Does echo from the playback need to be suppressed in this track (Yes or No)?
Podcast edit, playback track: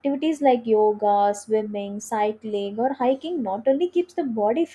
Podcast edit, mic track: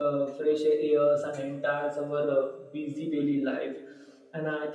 No